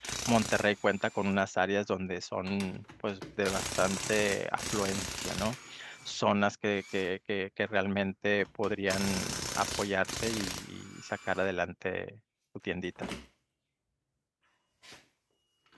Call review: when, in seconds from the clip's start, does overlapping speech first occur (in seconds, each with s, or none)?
none